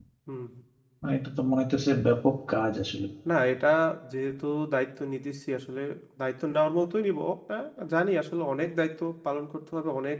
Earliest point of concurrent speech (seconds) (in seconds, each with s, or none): none